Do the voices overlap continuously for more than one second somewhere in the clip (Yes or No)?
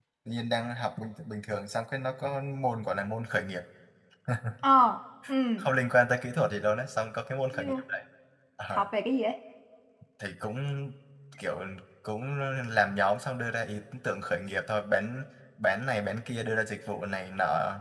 No